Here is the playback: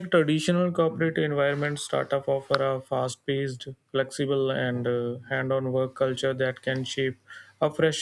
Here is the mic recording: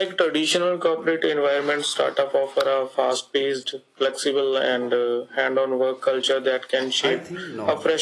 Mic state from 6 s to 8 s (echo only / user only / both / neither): both